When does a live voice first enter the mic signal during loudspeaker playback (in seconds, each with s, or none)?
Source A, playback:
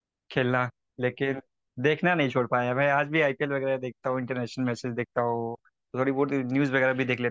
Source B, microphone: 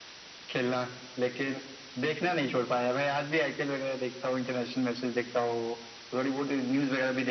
none